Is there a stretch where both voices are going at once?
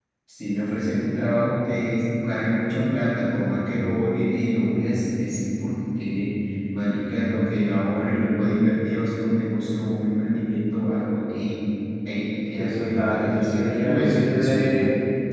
Yes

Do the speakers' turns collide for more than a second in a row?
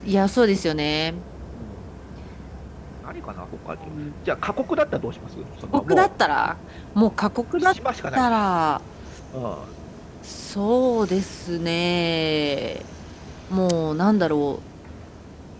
No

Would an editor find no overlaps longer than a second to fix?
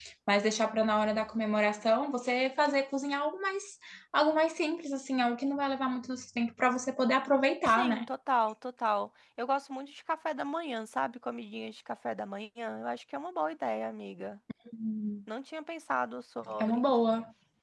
Yes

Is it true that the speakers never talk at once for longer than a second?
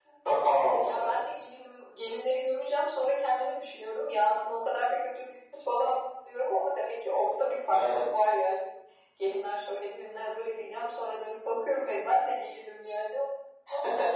Yes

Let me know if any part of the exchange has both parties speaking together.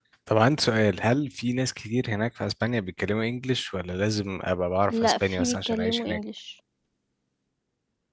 Yes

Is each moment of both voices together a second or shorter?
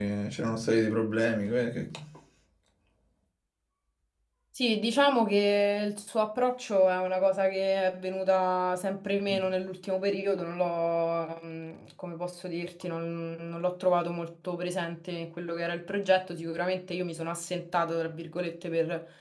Yes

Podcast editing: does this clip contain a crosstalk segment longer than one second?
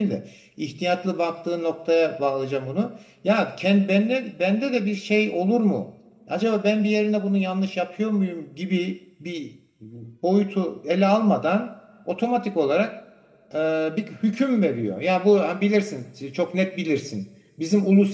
No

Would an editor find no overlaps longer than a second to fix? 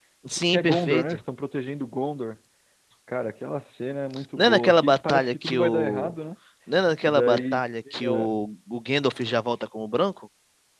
No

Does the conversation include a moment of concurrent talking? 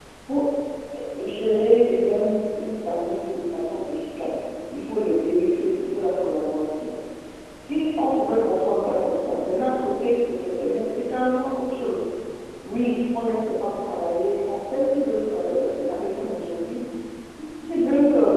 No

